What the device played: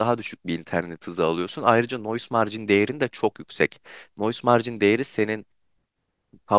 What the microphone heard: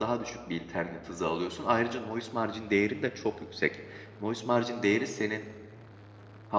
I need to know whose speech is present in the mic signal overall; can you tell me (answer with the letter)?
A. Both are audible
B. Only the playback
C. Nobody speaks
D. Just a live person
B